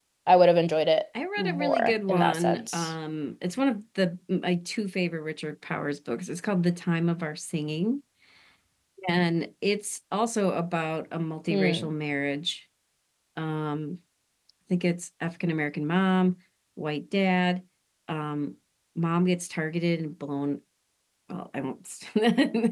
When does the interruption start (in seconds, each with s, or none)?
1.4 s